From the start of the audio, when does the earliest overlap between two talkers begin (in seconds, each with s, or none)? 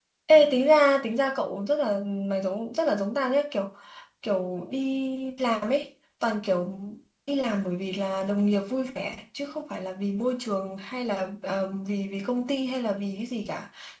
none